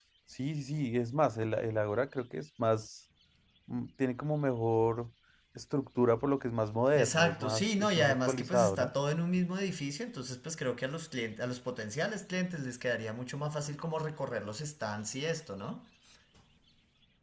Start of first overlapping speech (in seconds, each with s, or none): 6.9 s